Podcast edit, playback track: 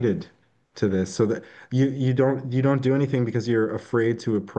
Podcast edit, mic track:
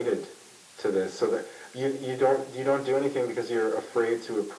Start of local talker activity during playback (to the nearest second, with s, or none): none